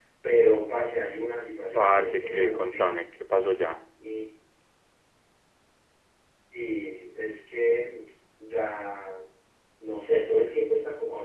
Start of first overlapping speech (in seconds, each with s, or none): 1.7 s